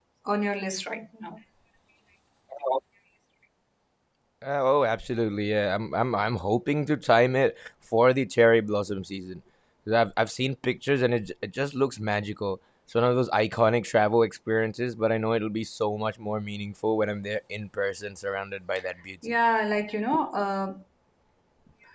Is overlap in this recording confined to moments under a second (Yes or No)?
Yes